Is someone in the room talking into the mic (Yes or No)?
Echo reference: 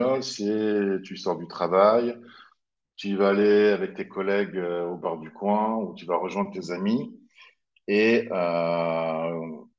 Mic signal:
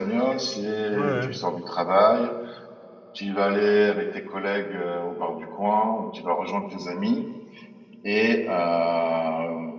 Yes